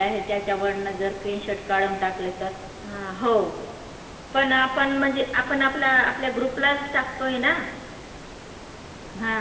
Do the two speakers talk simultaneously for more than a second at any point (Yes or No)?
No